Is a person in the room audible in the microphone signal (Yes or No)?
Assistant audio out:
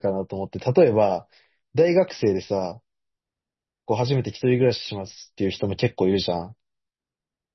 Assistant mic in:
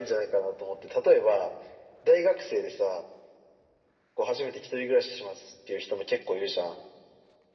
No